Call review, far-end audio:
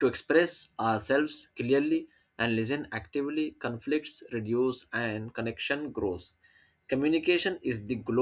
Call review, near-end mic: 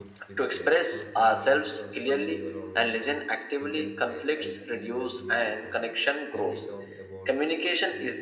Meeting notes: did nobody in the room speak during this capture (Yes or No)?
No